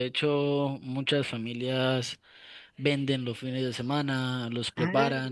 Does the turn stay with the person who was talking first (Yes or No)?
Yes